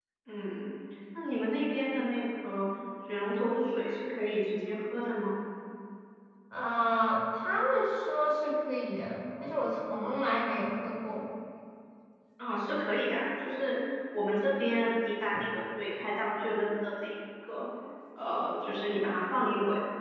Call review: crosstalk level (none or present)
none